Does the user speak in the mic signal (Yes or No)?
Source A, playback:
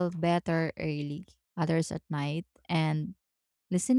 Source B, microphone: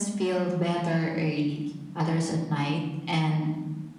No